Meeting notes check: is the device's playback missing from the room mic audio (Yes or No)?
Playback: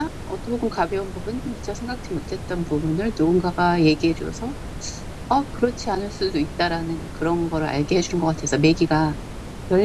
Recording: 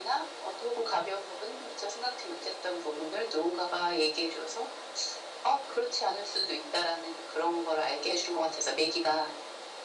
No